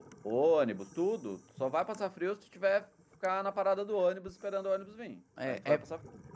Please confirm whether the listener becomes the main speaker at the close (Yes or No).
Yes